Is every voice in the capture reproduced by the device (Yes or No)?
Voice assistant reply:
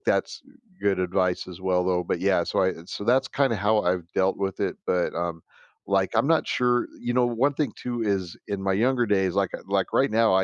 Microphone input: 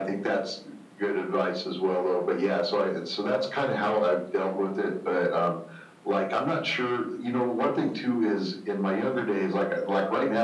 Yes